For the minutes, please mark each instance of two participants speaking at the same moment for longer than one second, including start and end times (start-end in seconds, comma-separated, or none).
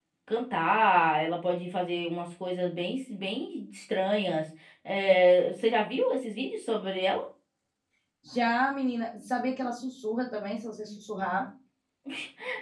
none